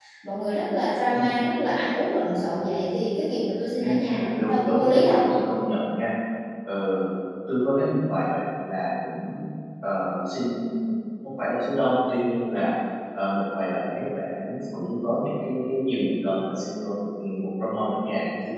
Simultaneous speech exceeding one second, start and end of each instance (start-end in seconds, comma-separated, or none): 3.8-5.2